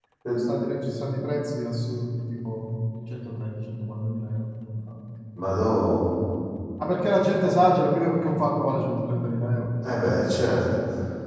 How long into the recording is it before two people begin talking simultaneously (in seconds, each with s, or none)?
none